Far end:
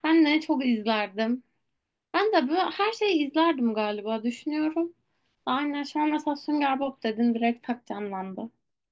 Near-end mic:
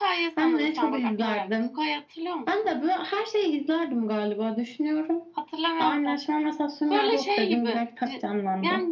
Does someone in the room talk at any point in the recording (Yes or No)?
Yes